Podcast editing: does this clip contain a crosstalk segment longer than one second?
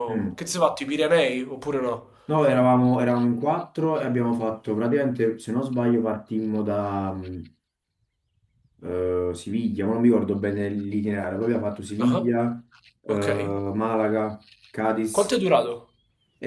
No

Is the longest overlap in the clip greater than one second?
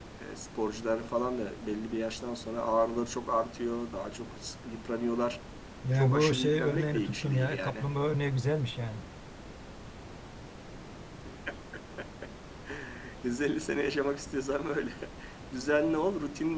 Yes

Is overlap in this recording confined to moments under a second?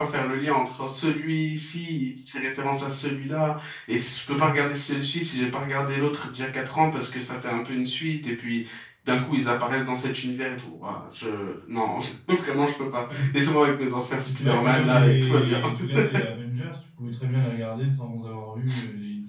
No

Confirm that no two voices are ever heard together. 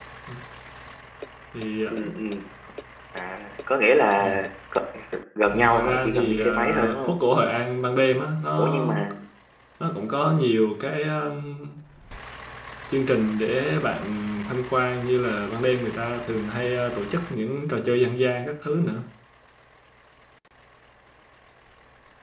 No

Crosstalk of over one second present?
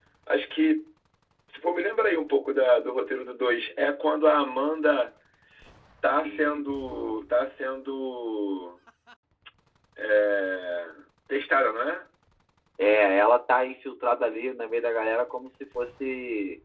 No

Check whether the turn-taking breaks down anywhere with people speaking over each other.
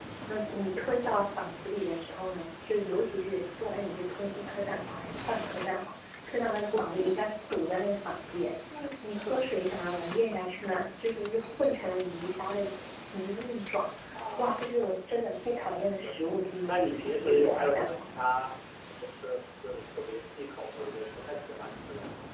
Yes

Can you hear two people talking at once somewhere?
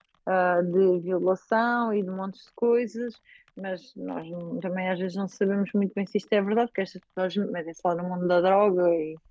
No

